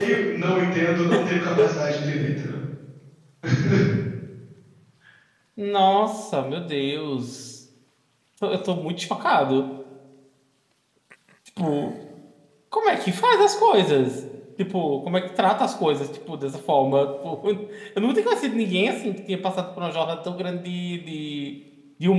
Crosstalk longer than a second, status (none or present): none